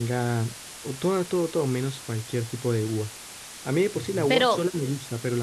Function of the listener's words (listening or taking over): listening